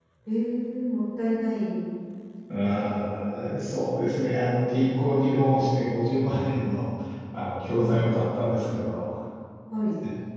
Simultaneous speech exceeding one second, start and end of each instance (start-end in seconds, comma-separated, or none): none